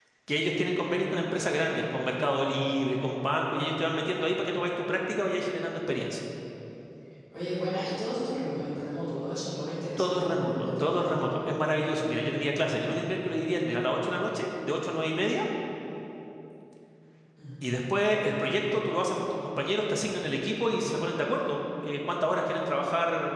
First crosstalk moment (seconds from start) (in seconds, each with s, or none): 10.0 s